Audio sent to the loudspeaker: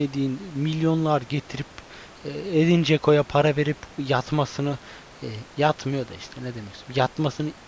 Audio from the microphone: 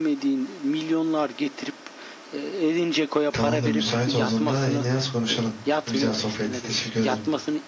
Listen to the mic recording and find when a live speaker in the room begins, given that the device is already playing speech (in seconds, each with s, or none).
3.3 s